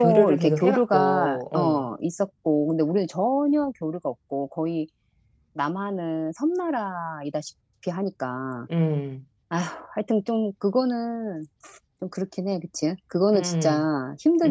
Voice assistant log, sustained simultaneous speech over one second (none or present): present